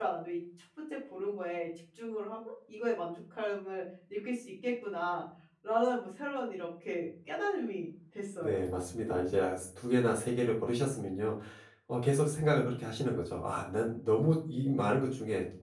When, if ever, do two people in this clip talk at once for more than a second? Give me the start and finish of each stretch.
none

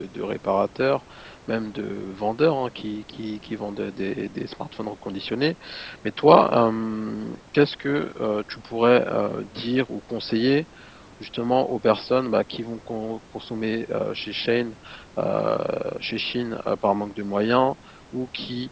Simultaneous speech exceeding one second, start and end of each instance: none

